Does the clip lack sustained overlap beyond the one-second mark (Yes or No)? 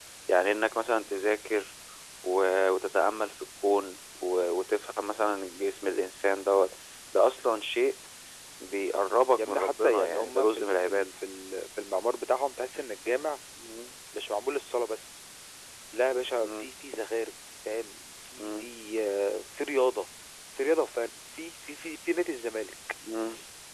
No